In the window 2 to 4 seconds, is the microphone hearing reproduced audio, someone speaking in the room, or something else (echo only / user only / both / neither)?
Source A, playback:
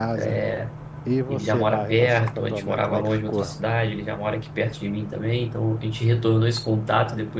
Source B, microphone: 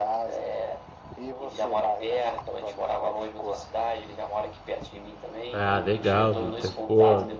echo only